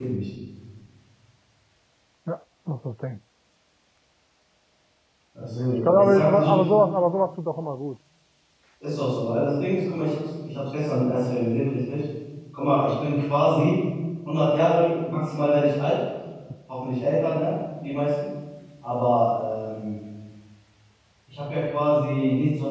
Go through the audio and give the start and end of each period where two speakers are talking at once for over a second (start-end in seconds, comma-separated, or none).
5.4-6.7